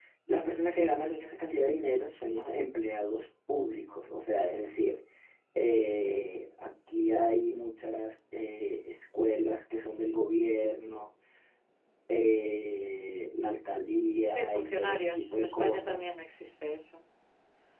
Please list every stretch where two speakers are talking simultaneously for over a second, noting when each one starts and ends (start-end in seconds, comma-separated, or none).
14.3-16.1